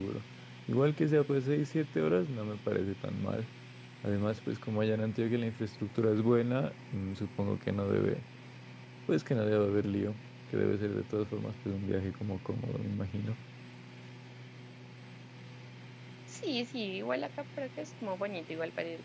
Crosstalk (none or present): none